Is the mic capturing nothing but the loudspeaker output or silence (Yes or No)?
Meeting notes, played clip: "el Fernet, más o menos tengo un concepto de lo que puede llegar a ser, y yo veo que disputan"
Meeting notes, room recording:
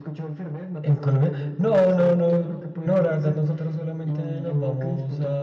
No